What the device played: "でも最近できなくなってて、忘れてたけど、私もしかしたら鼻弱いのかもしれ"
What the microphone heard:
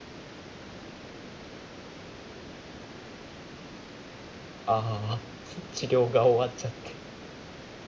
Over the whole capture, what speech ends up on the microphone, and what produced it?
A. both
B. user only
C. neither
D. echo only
B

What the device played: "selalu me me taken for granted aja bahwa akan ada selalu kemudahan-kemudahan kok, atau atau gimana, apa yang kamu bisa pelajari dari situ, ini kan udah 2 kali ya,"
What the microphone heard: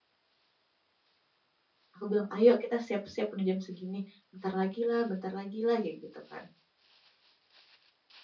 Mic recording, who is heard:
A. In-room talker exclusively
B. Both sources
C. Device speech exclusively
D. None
A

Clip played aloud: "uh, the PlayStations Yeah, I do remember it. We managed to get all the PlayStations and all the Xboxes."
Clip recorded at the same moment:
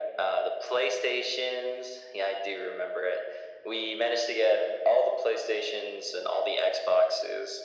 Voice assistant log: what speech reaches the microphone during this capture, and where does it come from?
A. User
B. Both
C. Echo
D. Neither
C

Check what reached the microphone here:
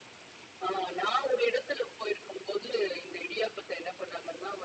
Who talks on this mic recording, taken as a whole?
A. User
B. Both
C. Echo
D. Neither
C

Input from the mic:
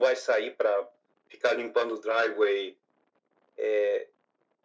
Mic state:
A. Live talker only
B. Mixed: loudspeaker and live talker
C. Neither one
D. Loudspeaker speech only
D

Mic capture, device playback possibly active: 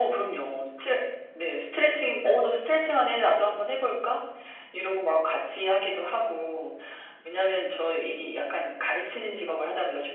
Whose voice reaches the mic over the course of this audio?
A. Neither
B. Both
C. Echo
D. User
C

